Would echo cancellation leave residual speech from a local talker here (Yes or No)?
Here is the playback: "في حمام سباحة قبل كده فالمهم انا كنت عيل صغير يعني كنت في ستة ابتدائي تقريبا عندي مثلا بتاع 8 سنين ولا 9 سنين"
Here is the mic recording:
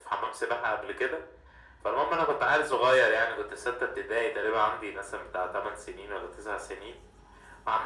No